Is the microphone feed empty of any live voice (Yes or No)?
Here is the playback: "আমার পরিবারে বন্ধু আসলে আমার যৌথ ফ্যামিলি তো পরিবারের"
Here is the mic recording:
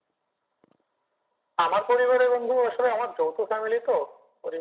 Yes